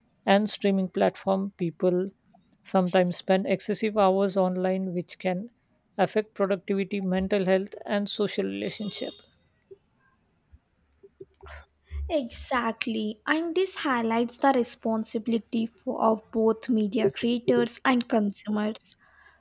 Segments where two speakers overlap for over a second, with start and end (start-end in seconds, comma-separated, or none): none